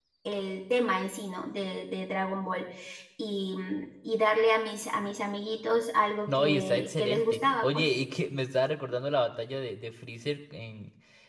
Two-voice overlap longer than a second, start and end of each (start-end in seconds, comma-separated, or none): 6.3-7.9